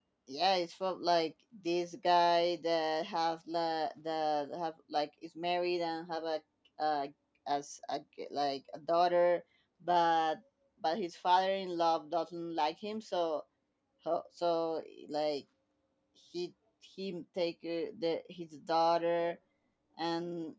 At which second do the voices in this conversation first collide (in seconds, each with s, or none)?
none